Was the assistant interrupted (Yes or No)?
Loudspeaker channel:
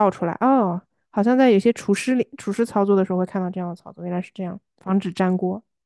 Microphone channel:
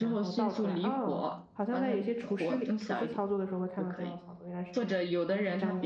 Yes